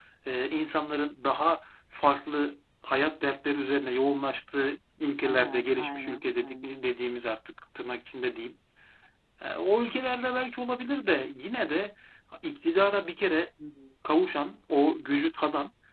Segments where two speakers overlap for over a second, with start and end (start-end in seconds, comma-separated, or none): 5.2-6.7